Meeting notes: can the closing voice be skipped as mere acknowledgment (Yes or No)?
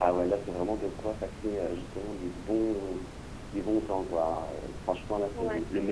Yes